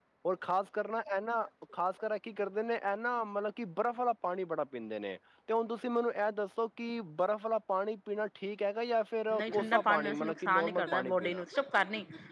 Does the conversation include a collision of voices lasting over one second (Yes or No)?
Yes